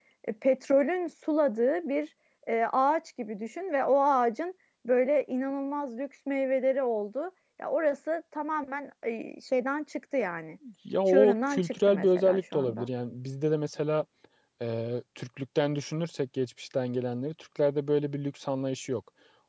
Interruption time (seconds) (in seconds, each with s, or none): 11.1 s